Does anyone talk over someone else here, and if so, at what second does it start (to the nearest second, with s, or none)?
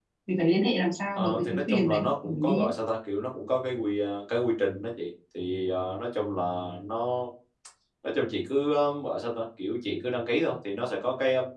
1 s